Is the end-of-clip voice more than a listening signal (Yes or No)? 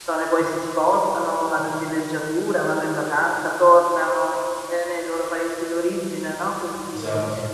No